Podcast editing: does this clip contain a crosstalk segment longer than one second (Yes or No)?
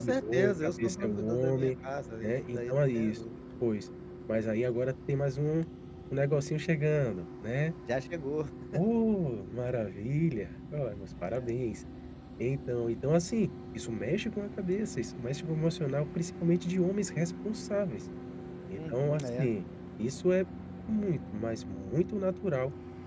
Yes